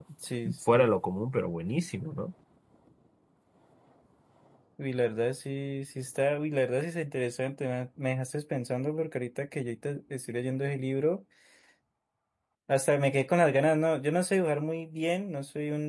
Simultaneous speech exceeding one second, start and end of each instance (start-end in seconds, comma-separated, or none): none